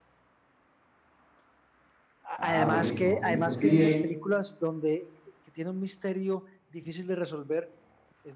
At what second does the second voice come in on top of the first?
2.4 s

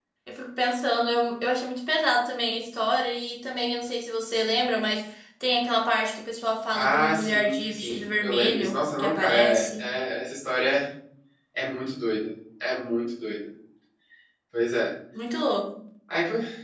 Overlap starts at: 6.7 s

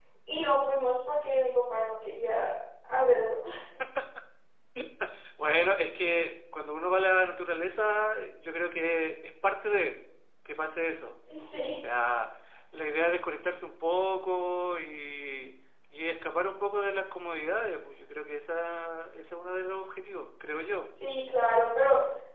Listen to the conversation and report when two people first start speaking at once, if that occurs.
none

